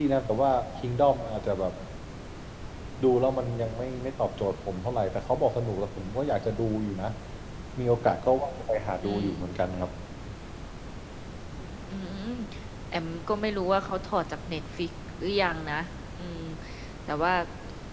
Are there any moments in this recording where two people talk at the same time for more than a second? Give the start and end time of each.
none

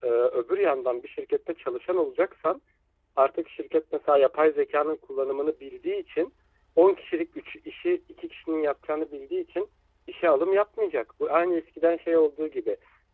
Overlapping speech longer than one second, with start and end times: none

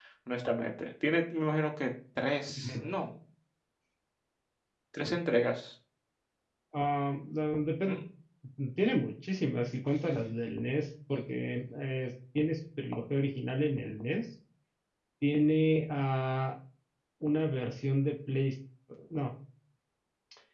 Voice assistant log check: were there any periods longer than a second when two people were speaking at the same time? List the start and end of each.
none

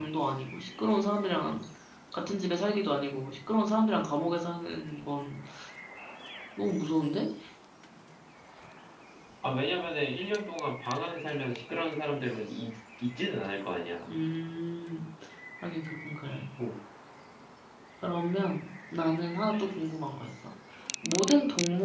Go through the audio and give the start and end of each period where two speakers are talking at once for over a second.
none

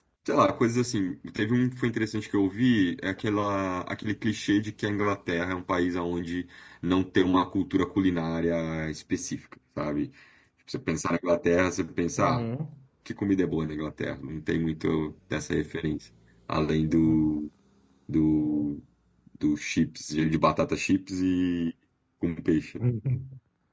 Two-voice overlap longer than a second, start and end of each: none

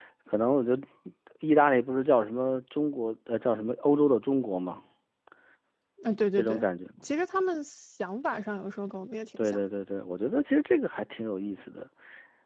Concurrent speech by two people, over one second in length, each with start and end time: none

